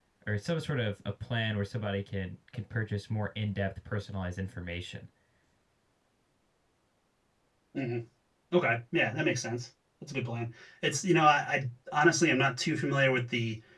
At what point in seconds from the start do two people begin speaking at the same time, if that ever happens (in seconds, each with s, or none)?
none